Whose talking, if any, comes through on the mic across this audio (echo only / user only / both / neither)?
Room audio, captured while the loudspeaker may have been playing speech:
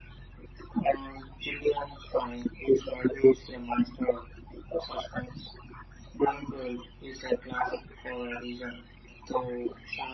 echo only